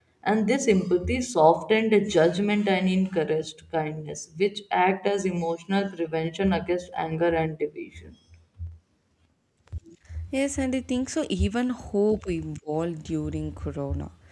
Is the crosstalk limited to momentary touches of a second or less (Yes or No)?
Yes